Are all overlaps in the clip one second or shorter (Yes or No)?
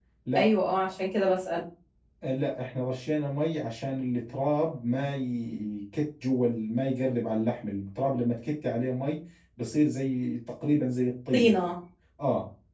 Yes